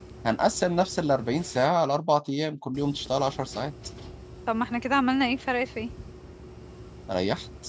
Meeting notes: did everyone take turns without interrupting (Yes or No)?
Yes